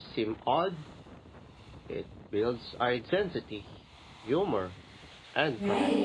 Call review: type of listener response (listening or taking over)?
taking over